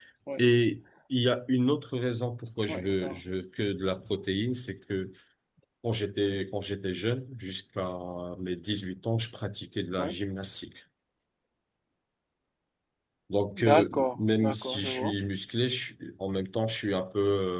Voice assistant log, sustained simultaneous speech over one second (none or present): present